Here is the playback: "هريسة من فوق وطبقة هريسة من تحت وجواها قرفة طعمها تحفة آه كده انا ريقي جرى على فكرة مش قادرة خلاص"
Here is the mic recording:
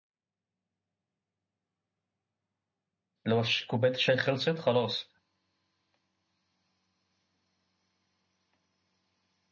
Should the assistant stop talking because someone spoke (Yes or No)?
Yes